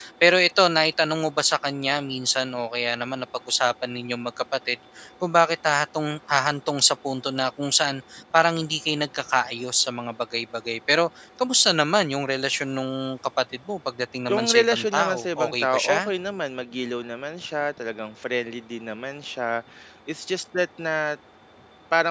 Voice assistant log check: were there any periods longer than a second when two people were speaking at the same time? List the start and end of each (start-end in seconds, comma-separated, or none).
14.3-16.1